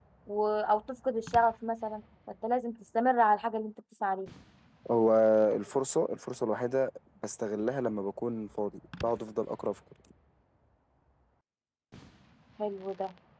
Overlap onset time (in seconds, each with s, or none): none